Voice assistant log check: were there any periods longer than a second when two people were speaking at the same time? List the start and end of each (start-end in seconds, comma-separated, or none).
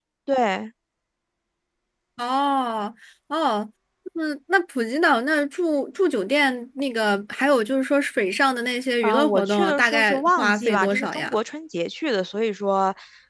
9.0-11.3